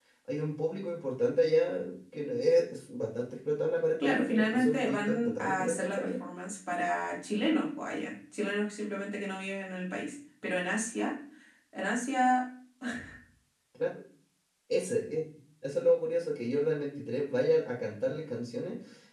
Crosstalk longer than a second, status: present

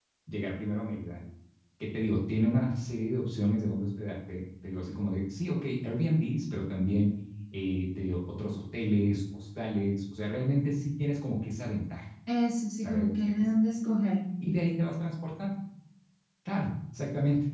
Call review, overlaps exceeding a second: none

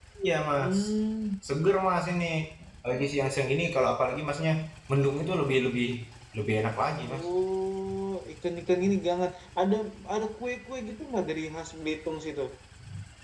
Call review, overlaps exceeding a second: none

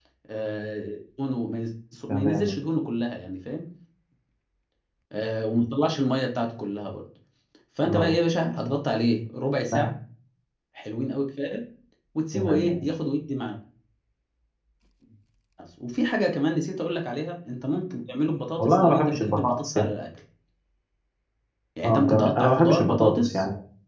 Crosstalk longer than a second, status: present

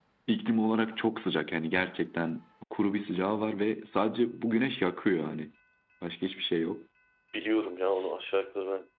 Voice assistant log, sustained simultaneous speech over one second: none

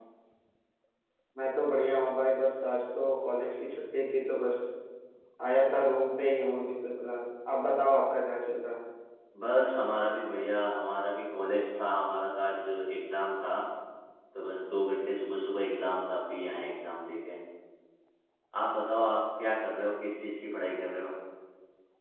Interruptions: none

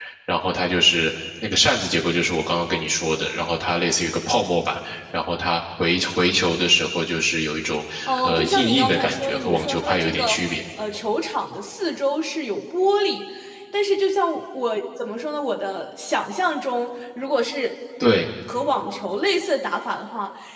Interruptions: present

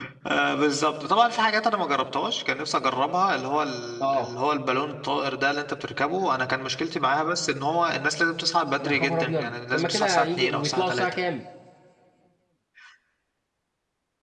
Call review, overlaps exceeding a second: present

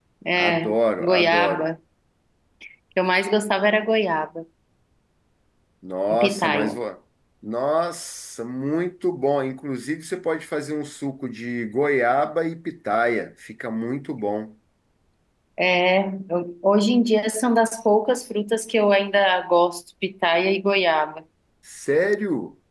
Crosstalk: present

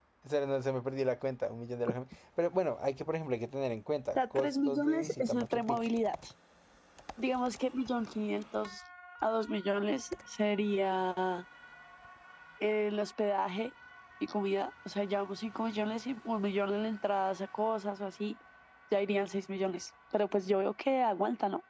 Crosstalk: present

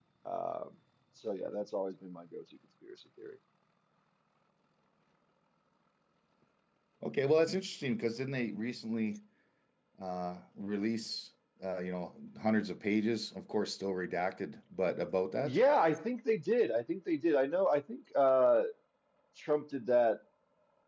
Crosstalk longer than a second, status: none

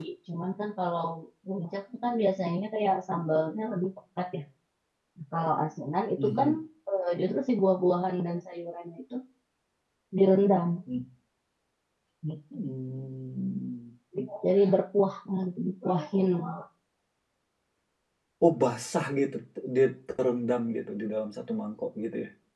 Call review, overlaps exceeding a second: none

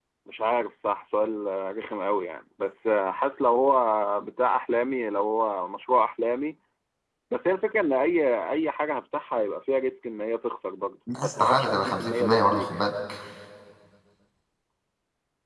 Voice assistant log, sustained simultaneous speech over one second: present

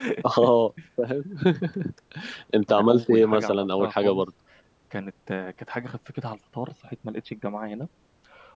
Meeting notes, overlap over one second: present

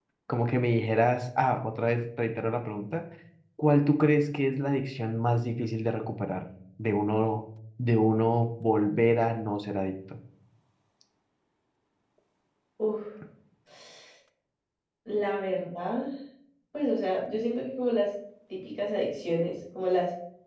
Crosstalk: none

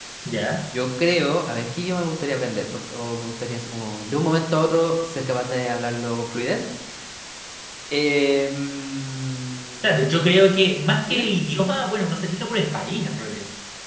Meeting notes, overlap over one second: none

